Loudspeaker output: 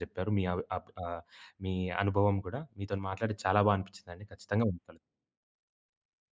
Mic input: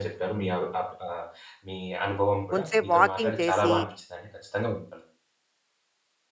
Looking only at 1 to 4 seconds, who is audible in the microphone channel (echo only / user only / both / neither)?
both